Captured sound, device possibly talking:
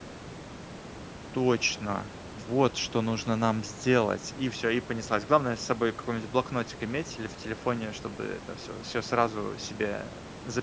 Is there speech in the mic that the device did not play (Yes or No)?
Yes